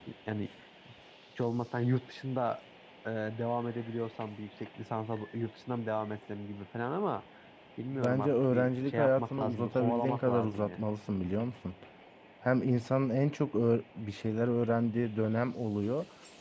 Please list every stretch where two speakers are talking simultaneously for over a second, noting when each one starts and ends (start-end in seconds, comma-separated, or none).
7.9-10.8